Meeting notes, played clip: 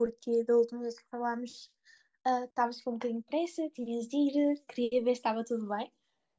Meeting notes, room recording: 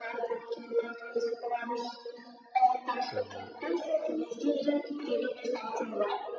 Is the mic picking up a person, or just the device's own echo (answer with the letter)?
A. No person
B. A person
B